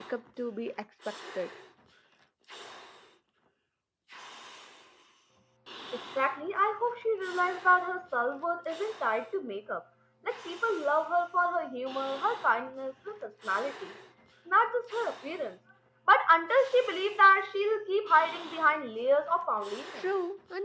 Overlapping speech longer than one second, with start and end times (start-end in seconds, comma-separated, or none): none